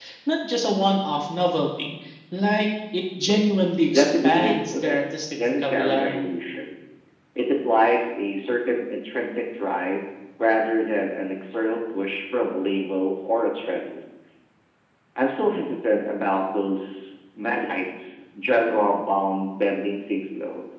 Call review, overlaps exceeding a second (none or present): present